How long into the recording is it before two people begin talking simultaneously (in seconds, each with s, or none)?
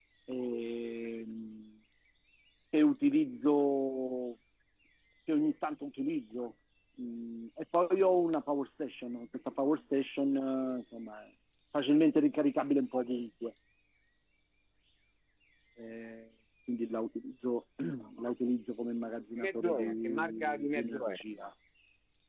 19.4 s